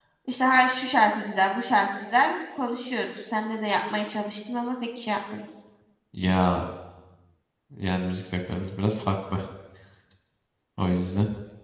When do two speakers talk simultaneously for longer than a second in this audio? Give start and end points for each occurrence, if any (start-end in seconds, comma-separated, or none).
none